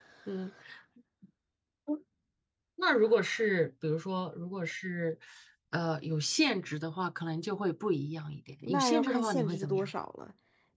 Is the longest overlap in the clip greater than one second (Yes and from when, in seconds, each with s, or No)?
Yes, from 8.6 s